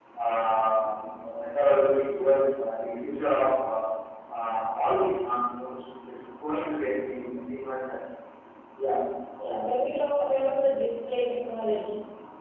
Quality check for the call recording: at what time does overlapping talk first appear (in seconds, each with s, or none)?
none